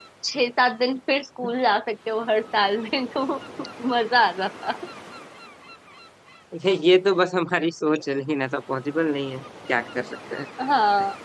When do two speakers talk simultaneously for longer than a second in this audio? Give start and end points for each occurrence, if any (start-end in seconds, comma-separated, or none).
none